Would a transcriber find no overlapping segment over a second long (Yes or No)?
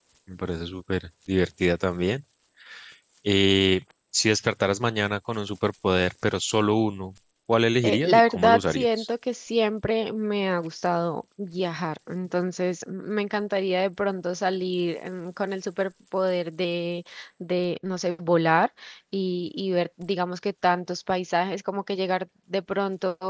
No